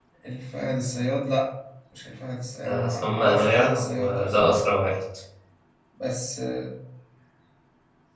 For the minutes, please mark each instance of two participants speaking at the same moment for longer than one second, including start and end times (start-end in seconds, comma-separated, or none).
2.7-4.6